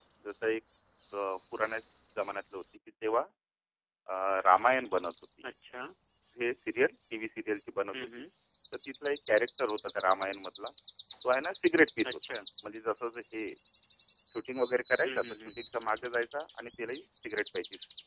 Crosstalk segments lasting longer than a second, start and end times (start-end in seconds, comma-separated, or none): none